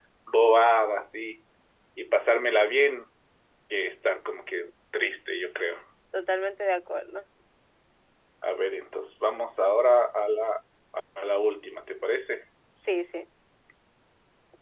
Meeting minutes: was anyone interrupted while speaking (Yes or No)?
No